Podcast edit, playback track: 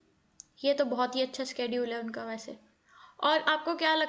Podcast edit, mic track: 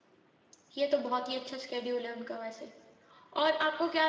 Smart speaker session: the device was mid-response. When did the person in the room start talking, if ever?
none

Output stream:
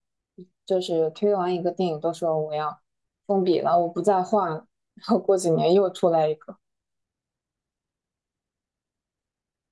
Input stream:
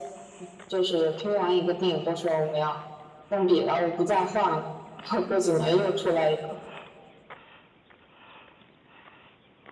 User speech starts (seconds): none

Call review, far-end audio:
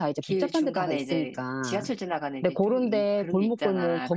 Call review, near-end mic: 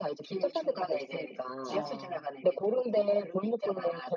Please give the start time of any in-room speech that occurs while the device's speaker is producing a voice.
1.7 s

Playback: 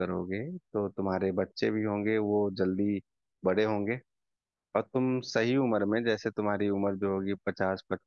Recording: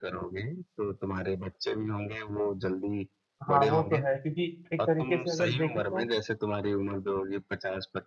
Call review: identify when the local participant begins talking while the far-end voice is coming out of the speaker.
3.5 s

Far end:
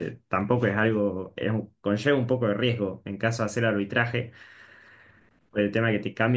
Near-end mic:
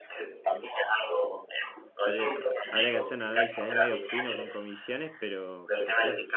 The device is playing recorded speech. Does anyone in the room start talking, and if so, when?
2.0 s

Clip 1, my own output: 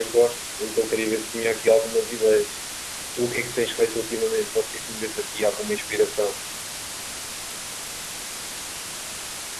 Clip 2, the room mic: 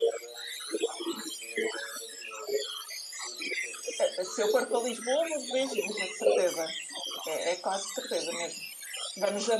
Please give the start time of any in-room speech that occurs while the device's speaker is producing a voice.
4.0 s

